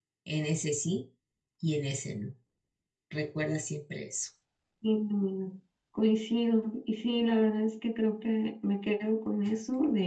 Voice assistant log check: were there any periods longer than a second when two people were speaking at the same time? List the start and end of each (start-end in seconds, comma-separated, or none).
none